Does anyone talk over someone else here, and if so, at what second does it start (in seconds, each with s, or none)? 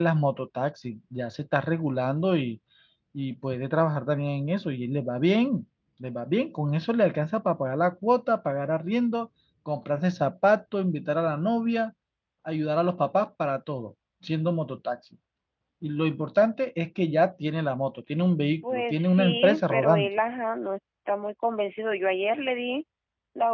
18.6 s